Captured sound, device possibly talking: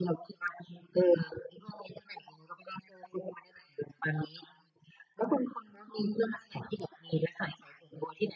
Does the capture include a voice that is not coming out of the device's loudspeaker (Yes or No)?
No